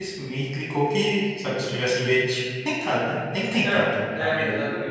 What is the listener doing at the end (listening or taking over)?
taking over